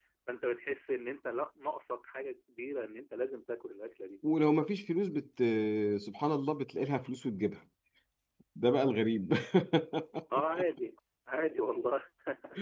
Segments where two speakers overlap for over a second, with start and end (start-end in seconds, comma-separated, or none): none